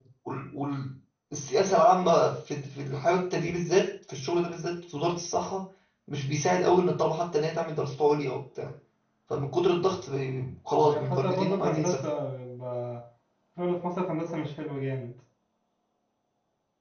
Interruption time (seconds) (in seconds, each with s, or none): 10.8 s